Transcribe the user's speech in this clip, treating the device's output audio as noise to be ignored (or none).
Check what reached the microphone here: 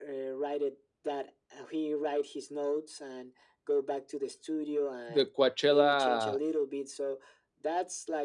the Coachella